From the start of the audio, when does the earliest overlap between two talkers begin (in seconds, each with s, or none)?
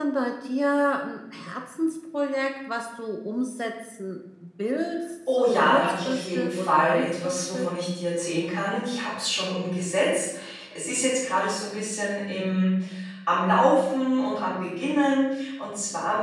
5.3 s